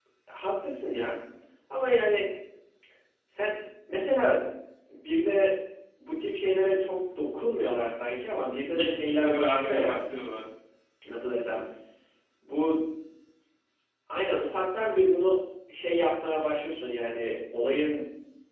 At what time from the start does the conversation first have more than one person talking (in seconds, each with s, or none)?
8.8 s